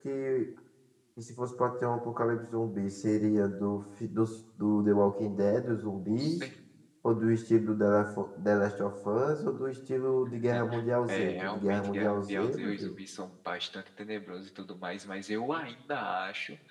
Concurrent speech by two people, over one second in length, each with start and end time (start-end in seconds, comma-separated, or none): 11.1-13.0